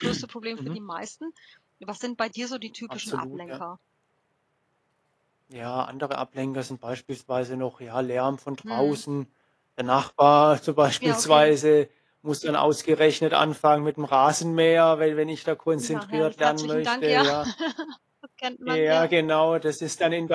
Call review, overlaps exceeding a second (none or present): present